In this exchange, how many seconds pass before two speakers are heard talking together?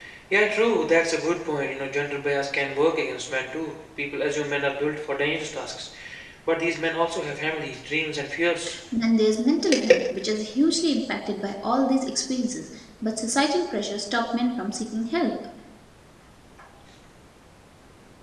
none

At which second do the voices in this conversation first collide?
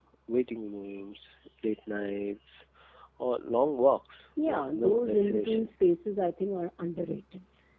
4.4 s

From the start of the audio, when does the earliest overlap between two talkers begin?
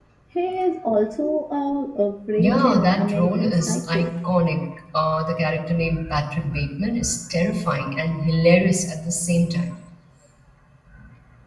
2.4 s

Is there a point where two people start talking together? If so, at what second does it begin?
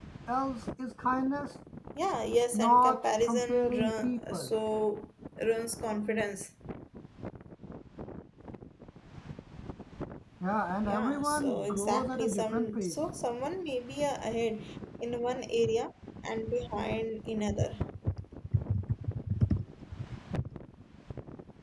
2.5 s

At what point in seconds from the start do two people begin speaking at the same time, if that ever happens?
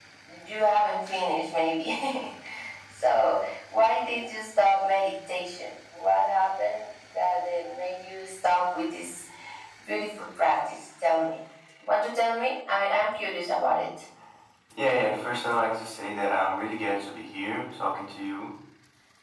none

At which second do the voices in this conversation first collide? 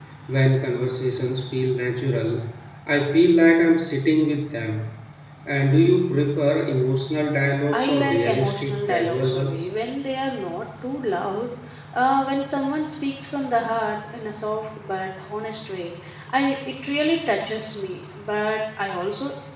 7.7 s

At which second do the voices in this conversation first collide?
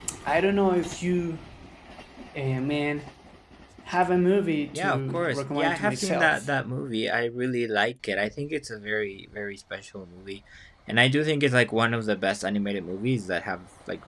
4.7 s

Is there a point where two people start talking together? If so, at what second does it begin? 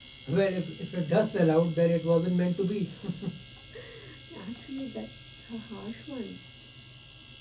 none

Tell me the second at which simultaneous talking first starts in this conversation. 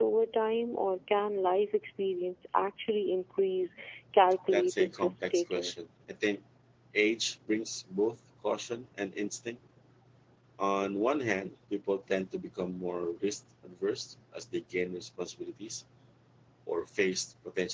4.5 s

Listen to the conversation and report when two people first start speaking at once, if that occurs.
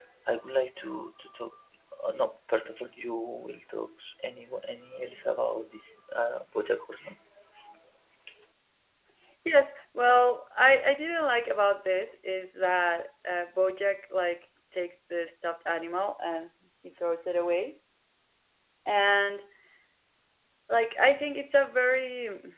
none

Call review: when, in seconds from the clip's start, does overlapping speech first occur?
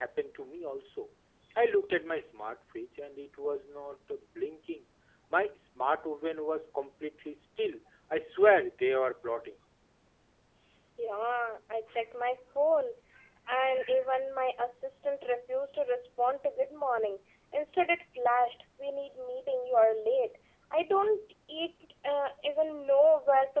none

